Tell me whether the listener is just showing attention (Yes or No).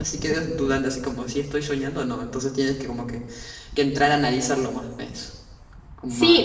No